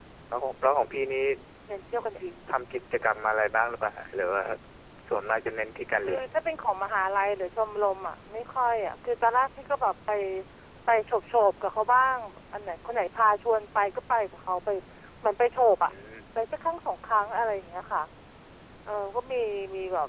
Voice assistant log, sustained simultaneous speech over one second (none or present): none